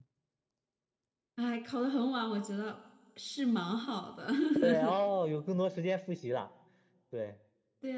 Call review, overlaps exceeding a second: none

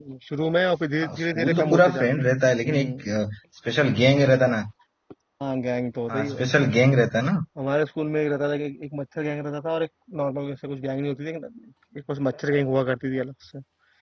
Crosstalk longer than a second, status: present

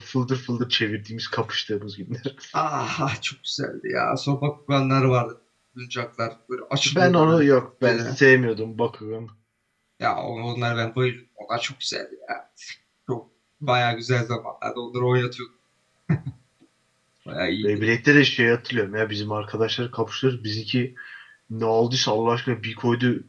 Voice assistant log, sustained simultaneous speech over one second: none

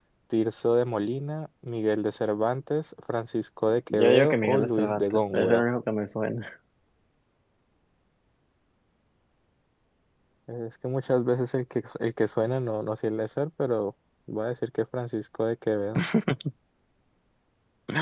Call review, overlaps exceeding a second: present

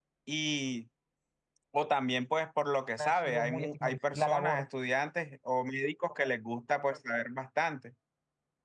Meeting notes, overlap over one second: present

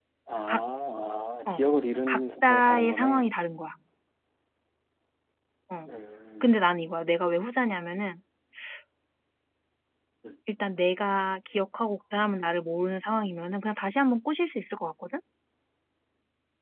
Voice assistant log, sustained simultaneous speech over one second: present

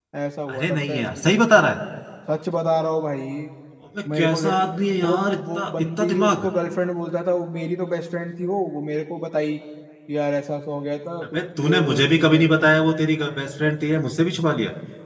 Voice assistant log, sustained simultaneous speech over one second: present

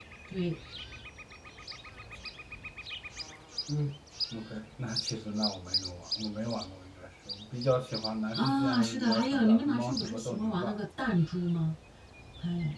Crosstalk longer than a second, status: present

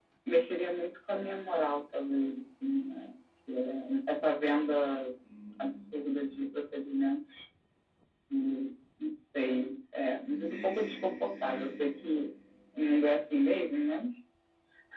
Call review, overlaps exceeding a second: present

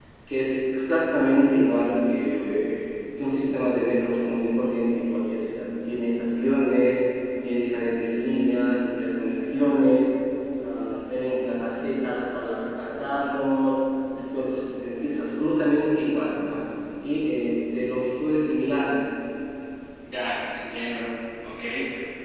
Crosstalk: none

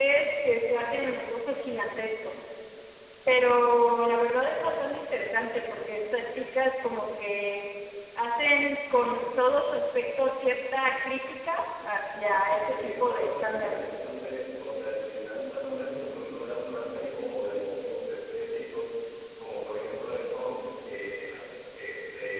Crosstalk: present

